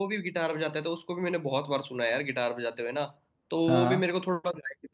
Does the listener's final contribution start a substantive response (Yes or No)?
No